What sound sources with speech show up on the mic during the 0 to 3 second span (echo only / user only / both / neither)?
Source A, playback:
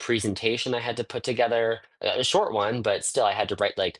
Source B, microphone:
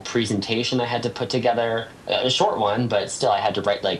echo only